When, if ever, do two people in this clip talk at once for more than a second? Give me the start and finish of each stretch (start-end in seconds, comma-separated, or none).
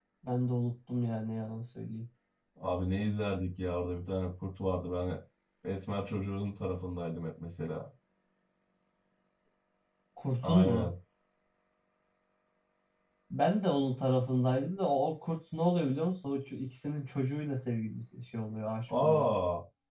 none